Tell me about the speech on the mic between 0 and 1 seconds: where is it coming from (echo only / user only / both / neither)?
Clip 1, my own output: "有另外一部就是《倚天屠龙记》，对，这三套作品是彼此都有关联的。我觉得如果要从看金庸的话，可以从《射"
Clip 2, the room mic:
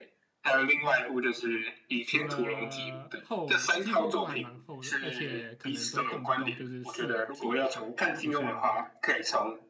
echo only